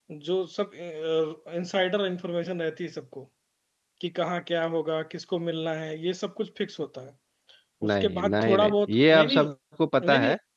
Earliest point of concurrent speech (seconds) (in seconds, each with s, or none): 7.9 s